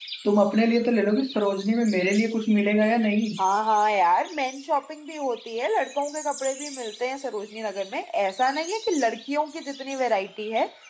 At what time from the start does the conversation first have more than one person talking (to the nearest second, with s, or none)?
none